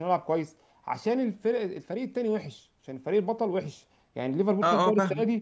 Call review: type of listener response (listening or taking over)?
taking over